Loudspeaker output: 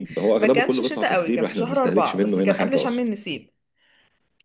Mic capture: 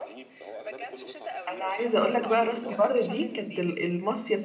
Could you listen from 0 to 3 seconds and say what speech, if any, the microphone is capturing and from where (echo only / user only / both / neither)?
both